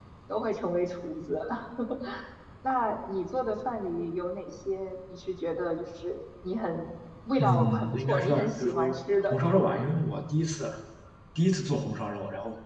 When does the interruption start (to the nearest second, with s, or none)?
7 s